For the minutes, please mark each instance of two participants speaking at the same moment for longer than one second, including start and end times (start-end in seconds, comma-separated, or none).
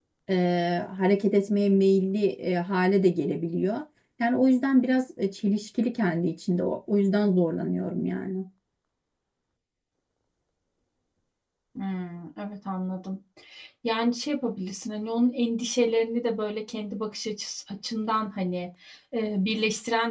none